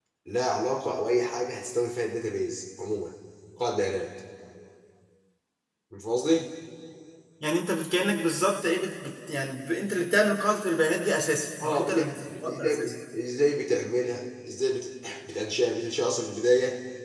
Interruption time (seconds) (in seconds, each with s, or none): 11.6 s